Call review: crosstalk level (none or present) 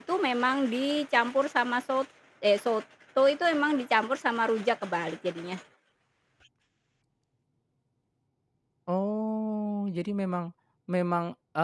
none